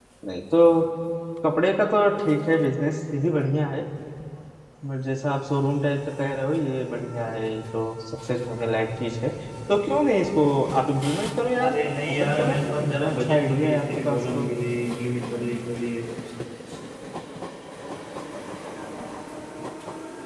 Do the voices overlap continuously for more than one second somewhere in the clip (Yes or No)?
Yes